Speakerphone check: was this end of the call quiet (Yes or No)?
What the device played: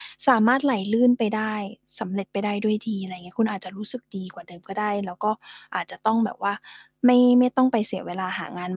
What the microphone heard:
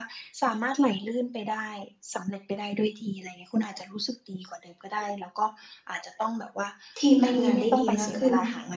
No